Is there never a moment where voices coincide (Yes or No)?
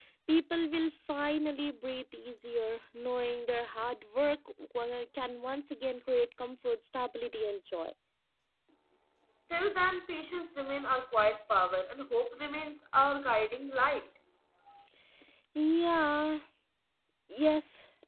Yes